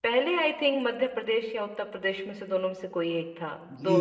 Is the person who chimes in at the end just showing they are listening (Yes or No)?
No